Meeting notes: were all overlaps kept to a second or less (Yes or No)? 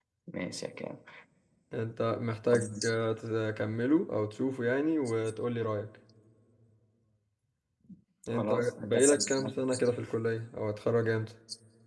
No